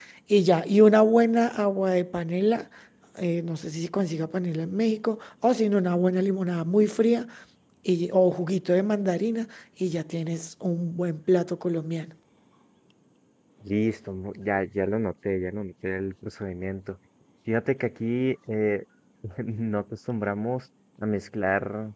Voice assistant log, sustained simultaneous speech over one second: none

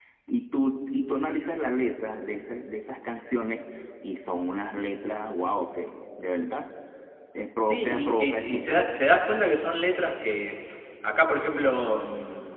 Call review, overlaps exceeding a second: present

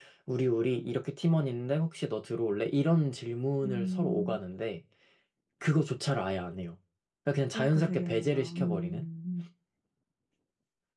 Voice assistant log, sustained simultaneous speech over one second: present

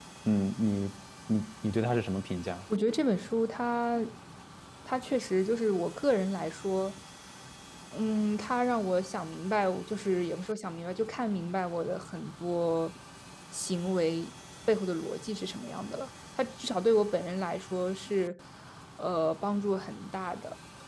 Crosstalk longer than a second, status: none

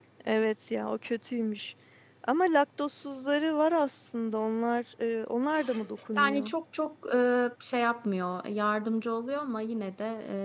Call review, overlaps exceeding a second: none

